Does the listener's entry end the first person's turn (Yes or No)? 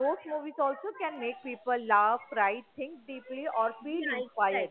Yes